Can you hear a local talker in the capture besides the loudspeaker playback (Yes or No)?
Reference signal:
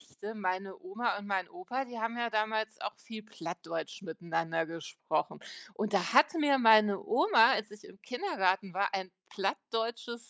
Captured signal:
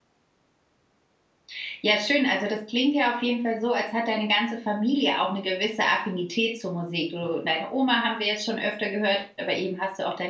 Yes